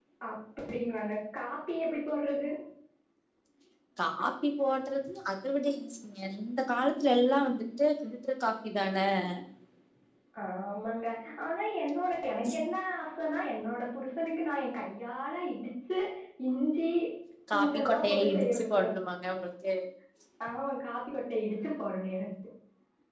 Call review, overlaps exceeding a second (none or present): present